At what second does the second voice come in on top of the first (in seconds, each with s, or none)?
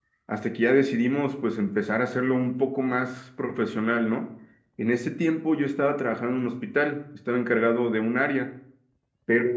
none